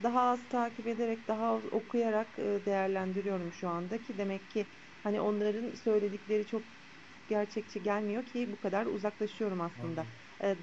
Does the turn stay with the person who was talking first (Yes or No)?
Yes